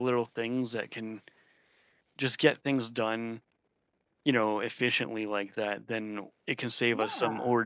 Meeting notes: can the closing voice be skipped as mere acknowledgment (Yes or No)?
Yes